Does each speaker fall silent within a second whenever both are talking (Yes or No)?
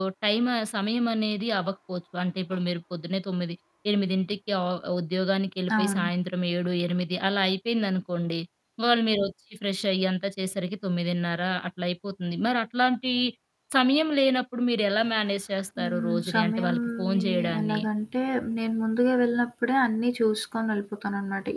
No